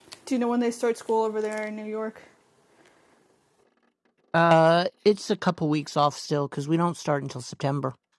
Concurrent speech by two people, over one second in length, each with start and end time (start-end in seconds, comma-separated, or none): none